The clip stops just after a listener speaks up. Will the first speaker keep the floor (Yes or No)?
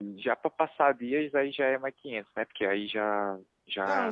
No